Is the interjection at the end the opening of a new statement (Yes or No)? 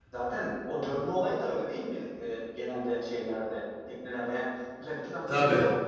No